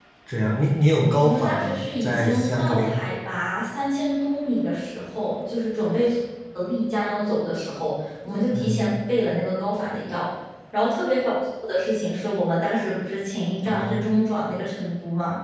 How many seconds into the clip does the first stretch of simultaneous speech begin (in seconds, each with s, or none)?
1.2 s